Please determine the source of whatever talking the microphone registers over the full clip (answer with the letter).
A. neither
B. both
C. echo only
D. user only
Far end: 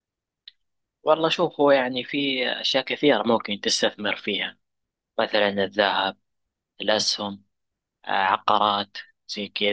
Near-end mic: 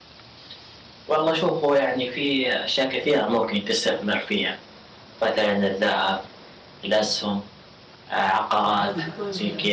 B